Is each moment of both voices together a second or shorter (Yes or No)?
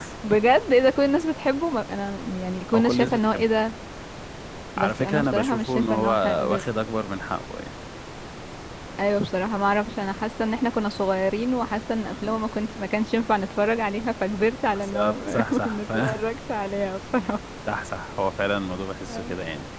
No